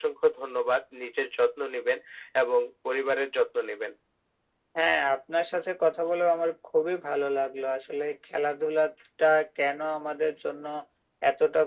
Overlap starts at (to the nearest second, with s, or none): none